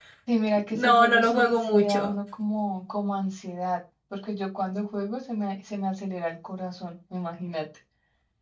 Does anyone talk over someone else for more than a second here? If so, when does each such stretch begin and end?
0.7-2.1

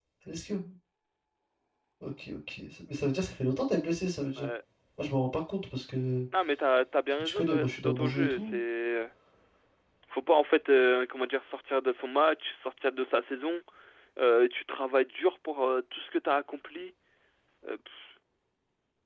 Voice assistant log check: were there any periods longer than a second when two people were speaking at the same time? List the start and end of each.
7.1-8.6

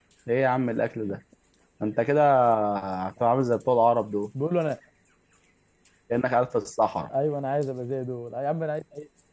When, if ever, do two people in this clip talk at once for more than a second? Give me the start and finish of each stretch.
none

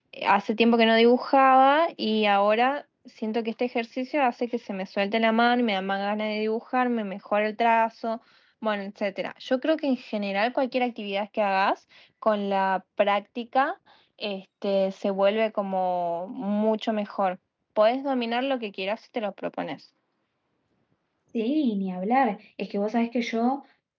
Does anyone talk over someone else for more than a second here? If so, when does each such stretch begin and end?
none

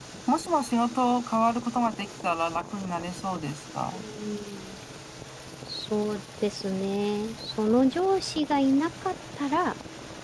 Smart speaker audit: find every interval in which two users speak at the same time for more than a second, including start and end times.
none

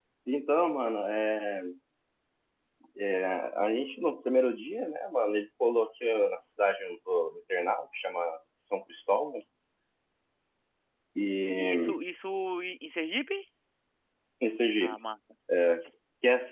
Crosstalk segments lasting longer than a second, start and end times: none

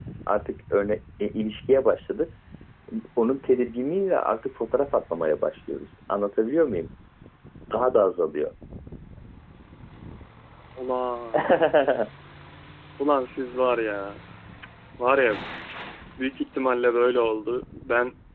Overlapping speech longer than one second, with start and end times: none

